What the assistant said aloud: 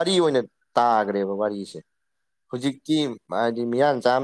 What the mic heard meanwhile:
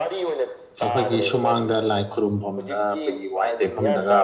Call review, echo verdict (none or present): present